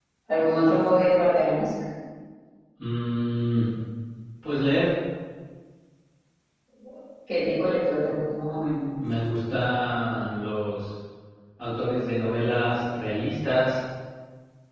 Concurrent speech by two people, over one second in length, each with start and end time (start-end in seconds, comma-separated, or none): none